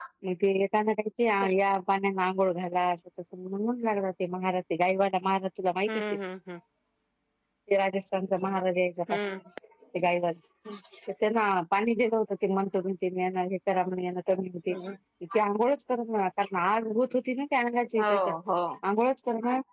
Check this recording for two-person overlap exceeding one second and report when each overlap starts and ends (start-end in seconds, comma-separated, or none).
none